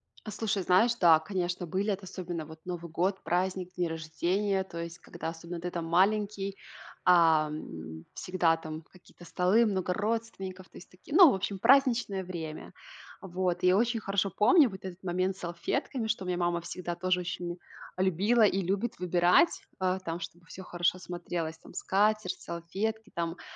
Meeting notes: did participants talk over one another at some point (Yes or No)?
No